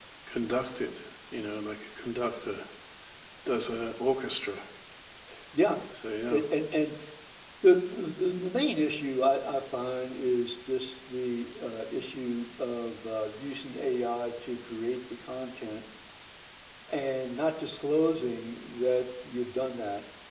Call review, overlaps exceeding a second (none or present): none